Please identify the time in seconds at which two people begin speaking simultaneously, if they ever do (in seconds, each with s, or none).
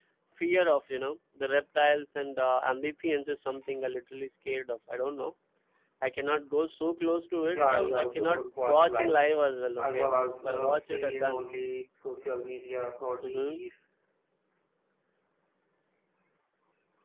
7.5 s